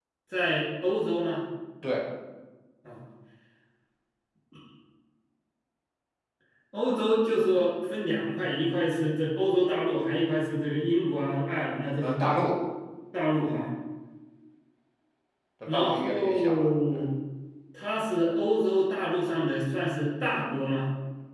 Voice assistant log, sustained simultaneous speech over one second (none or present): present